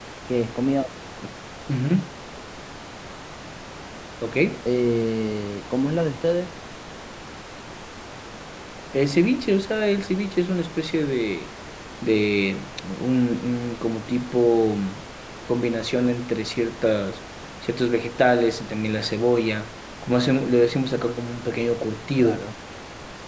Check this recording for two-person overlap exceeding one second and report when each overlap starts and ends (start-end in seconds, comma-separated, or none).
none